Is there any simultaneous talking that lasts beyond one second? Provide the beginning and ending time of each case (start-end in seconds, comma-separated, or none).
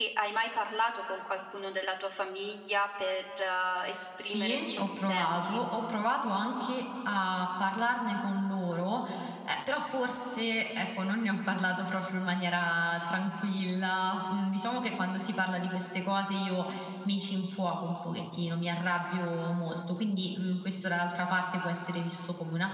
4.2-5.6